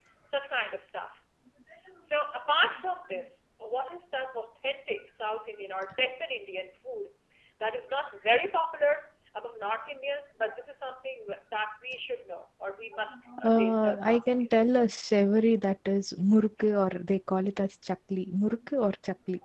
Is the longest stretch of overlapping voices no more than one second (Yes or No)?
No